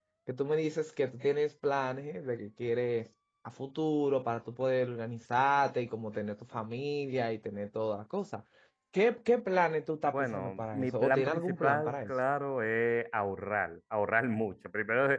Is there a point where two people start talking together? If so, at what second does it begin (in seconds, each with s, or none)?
10.1 s